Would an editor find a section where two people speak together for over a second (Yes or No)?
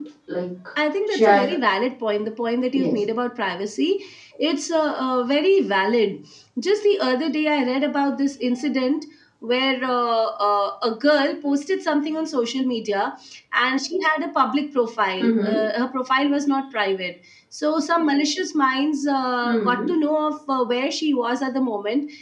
No